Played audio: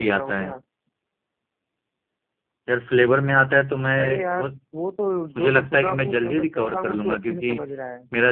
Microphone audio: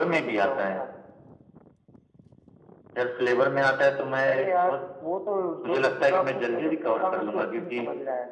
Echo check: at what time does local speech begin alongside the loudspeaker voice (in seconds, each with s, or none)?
none